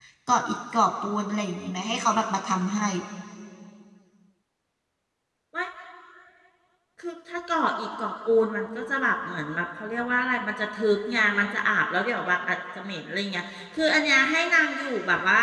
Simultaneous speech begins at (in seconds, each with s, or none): none